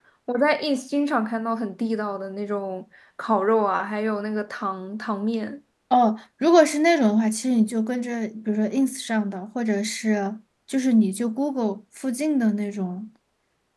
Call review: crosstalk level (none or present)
none